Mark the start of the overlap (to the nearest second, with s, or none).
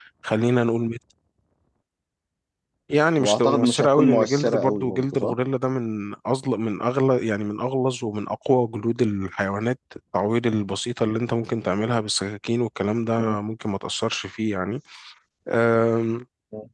3 s